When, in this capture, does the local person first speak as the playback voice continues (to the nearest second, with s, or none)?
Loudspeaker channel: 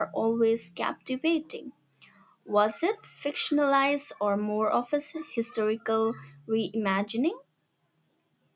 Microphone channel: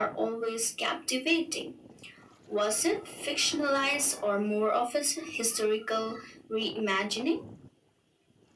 none